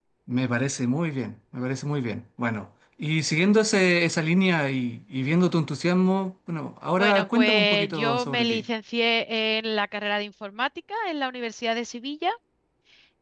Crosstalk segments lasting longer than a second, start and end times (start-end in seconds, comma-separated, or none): 7.0-8.6